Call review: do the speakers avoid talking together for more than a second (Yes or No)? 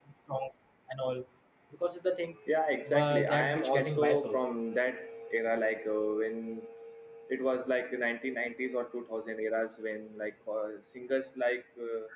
No